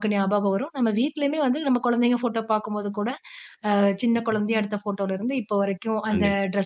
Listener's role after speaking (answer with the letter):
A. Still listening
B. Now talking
A